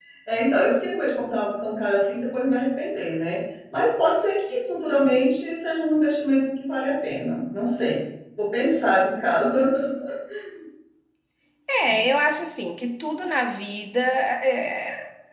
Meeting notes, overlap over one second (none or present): none